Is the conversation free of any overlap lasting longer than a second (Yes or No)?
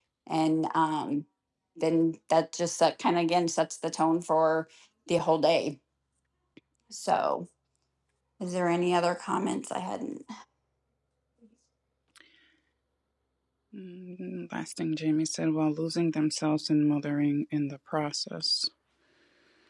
Yes